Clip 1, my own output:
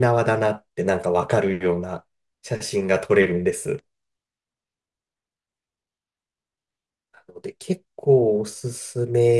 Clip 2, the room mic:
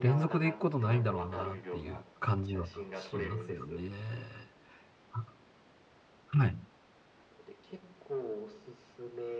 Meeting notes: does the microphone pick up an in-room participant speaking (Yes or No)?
Yes